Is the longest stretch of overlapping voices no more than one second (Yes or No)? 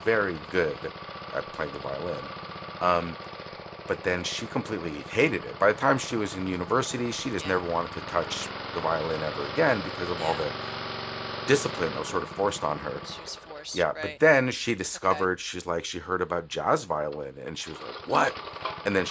Yes